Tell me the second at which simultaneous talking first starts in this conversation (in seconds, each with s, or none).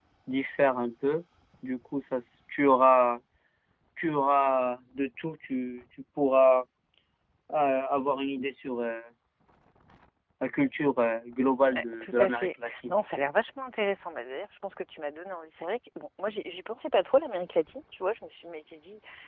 11.7 s